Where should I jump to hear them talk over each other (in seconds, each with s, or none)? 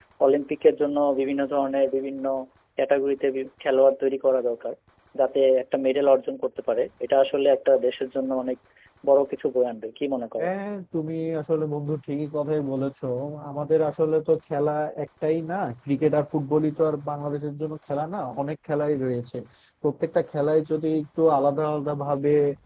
none